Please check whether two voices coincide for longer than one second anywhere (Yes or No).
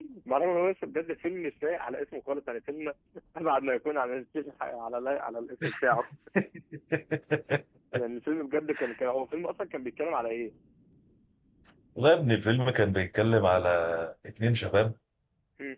No